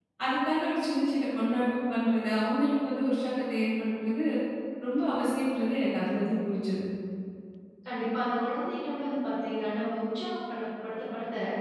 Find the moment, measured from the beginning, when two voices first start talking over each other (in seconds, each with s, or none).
none